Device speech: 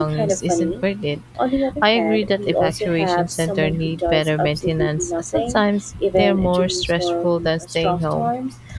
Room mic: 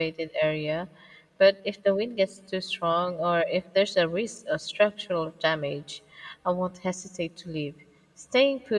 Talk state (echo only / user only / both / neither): user only